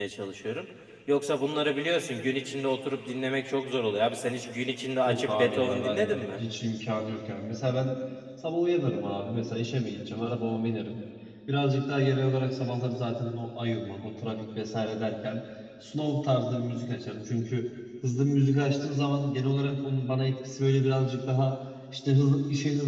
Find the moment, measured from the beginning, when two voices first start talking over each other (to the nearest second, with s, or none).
5 s